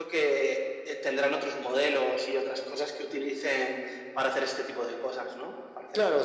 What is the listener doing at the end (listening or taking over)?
taking over